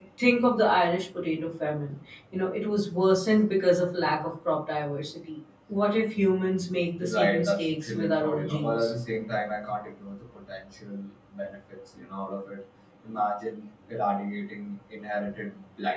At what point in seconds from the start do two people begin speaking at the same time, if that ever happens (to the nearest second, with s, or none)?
7 s